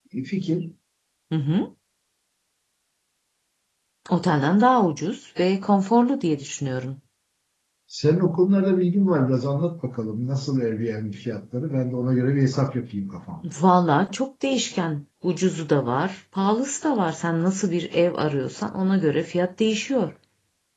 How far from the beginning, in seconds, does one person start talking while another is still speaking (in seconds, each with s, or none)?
none